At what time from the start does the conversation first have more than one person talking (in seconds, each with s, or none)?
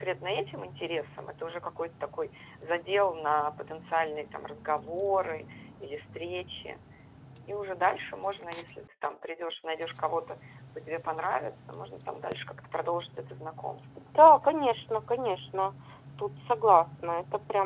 none